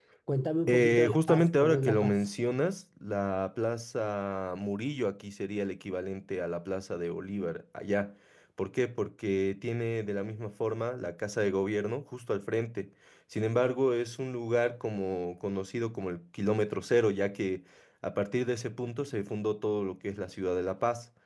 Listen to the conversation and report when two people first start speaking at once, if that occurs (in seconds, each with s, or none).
0.7 s